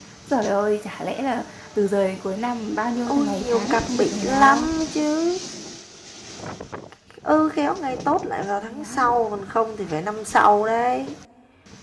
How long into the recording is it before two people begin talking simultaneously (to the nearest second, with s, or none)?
3 s